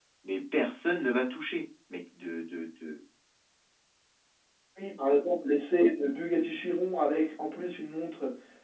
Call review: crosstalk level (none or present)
none